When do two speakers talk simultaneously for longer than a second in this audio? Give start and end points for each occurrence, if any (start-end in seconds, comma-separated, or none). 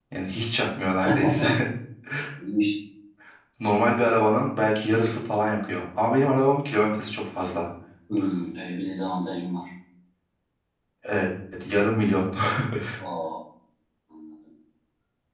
none